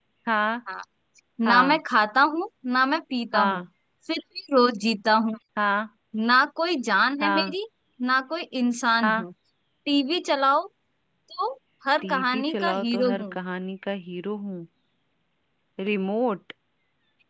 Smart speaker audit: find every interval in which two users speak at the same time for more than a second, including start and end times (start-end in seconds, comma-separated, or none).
12.0-13.4